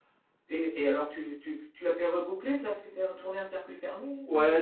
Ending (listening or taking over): taking over